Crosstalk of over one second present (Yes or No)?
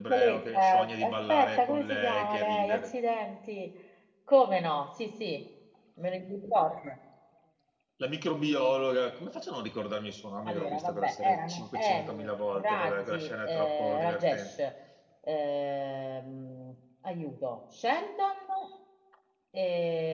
Yes